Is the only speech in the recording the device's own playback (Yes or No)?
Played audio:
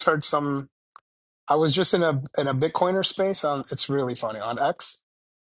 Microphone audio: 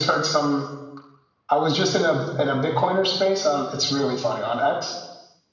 Yes